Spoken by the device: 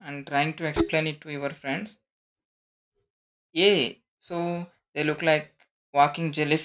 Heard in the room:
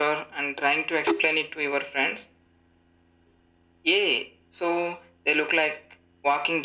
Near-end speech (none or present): none